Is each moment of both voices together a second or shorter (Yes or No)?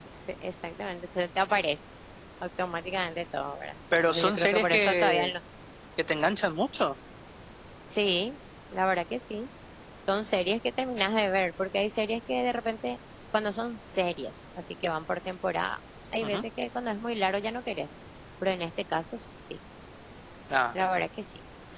No